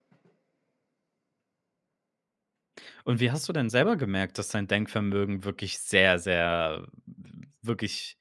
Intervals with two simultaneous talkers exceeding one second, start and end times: none

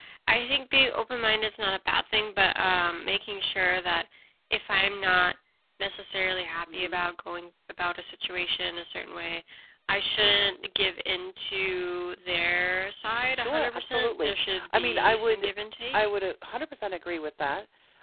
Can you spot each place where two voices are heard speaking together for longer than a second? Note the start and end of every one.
13.4-15.5

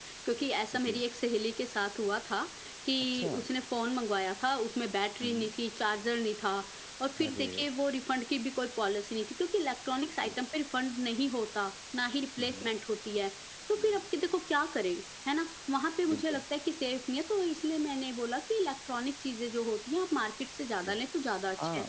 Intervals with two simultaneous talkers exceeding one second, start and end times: none

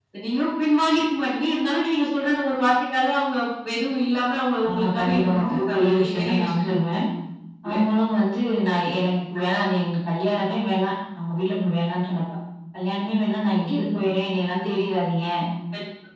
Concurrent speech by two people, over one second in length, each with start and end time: 4.7-6.9

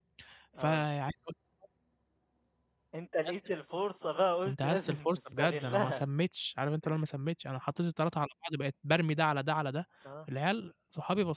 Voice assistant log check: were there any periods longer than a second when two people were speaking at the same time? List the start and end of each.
4.5-6.0

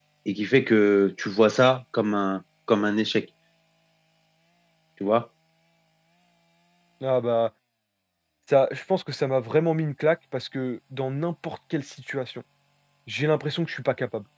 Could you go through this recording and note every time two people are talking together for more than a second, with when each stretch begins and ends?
none

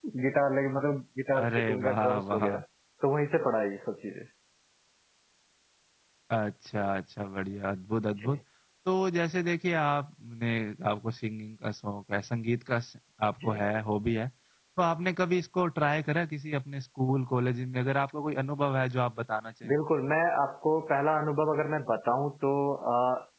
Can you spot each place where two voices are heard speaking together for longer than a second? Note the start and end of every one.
1.4-2.6

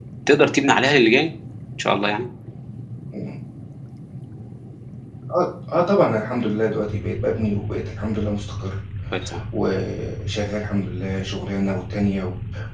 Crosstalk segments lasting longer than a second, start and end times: none

